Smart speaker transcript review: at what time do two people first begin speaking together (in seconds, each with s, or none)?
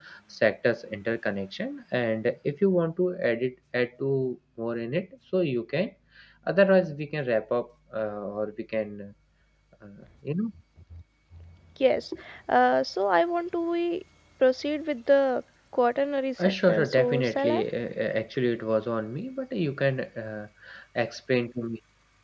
16.4 s